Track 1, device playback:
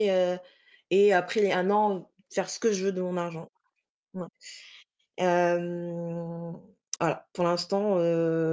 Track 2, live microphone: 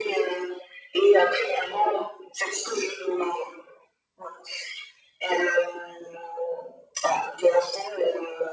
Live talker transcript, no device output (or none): none